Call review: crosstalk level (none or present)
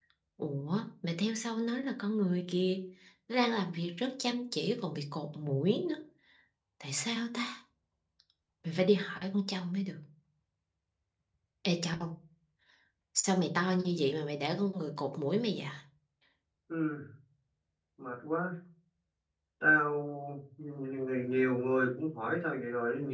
none